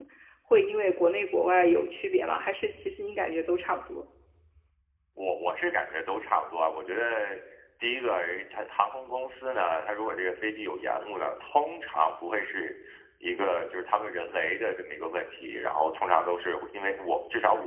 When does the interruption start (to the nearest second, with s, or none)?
none